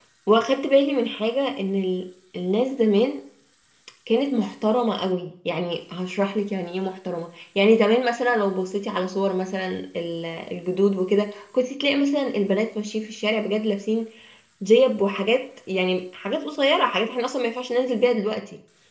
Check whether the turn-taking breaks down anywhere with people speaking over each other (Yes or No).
No